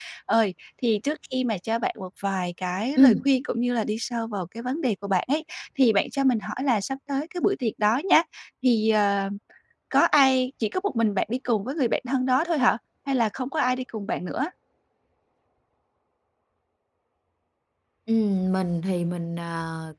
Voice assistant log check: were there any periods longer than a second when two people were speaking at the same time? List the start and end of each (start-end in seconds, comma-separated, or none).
none